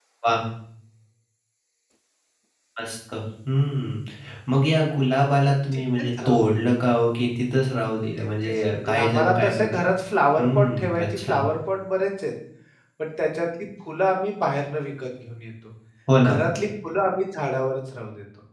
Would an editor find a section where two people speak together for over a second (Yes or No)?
Yes